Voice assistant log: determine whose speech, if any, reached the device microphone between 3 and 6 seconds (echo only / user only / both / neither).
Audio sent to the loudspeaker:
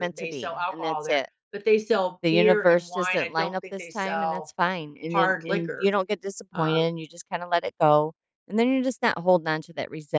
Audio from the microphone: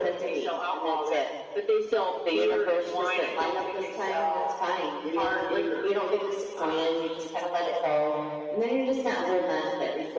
echo only